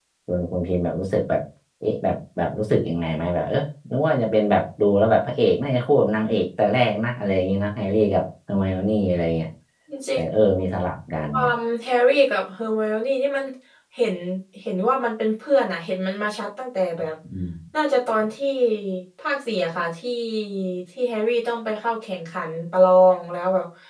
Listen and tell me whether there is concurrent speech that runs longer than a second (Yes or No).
No